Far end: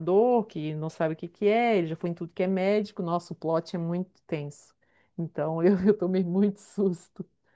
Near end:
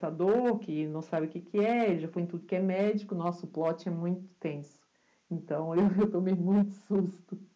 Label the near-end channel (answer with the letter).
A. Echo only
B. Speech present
A